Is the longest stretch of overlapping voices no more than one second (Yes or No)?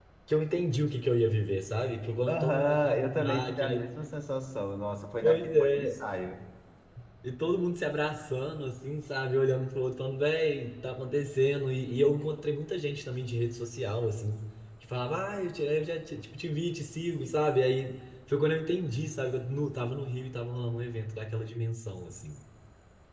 No